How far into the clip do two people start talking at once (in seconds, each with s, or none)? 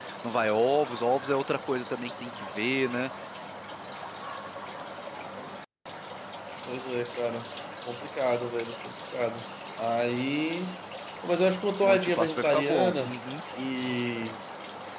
11.8 s